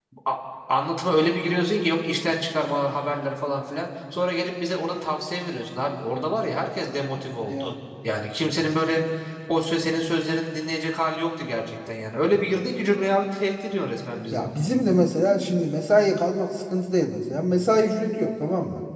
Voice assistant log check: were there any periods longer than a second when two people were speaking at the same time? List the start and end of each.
none

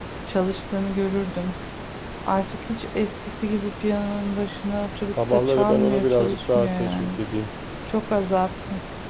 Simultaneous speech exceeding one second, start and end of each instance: 5.3-7.2

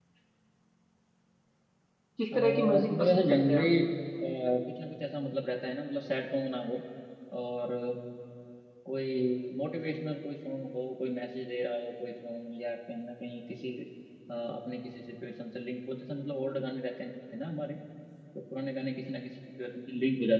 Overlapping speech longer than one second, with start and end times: 2.3-3.6

